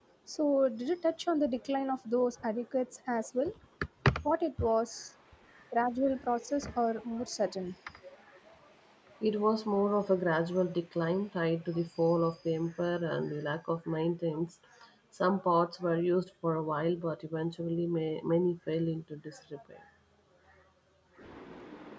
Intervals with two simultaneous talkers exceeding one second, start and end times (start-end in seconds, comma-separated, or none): none